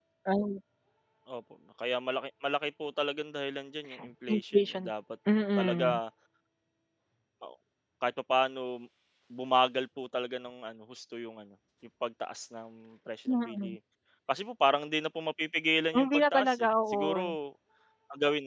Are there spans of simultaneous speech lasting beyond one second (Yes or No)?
Yes